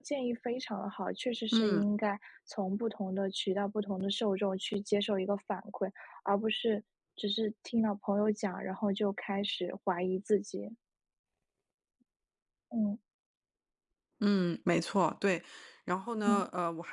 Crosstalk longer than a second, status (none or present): none